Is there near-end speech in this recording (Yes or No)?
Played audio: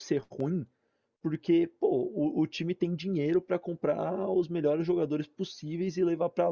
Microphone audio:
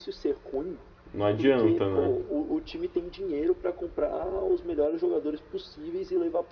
Yes